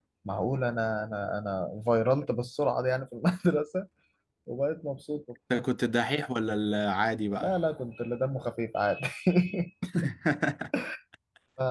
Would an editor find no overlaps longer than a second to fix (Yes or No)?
Yes